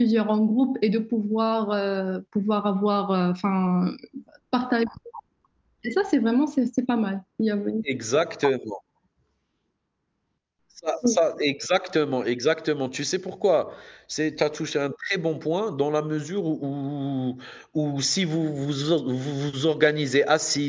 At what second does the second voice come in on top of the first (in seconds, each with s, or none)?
none